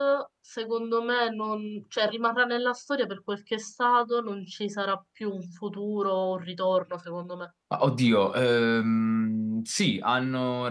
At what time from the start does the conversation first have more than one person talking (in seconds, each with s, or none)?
none